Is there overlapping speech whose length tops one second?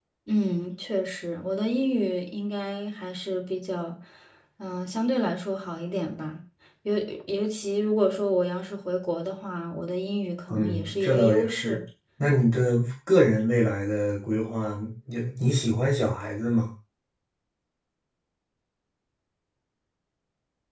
Yes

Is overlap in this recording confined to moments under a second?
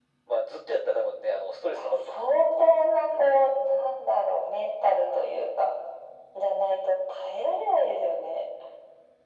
Yes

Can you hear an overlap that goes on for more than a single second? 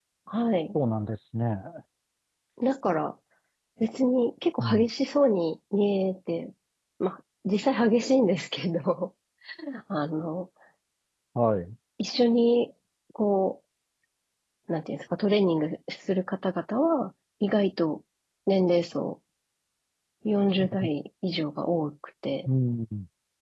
No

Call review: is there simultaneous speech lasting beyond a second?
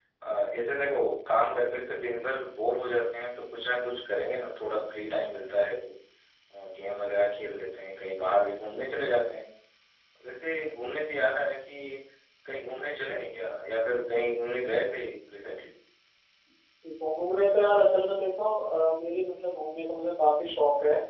No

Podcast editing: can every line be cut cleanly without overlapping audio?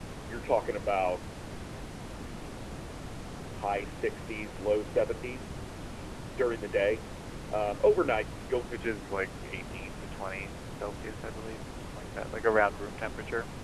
Yes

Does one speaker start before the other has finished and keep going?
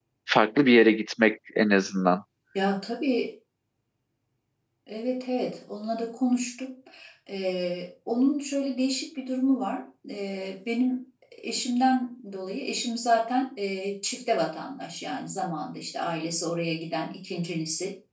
No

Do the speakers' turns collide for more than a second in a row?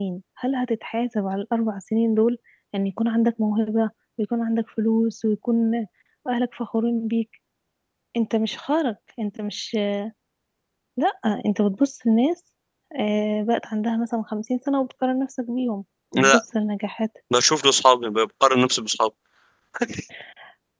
No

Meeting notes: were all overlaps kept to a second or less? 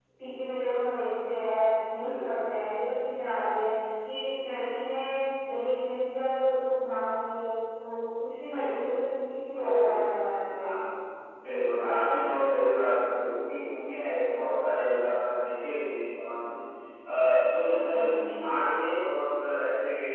Yes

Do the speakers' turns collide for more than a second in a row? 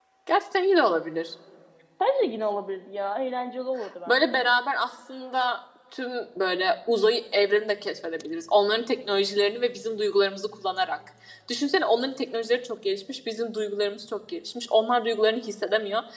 No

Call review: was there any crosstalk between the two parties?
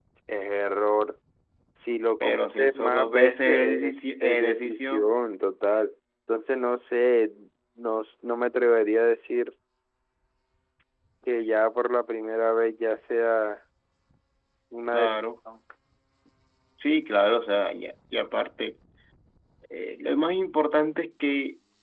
Yes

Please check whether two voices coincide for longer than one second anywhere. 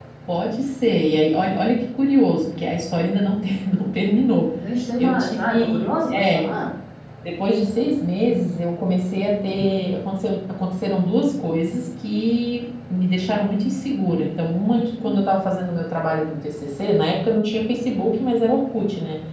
Yes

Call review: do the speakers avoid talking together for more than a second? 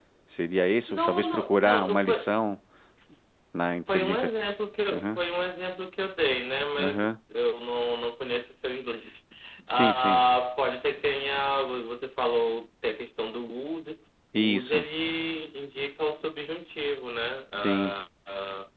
No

